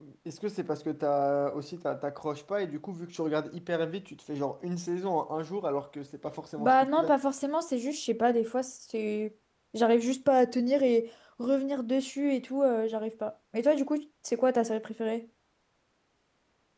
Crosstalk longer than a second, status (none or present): none